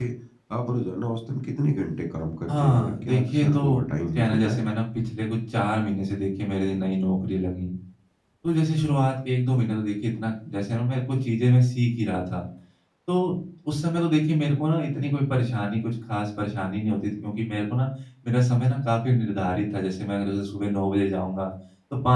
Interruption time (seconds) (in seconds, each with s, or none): 2.5 s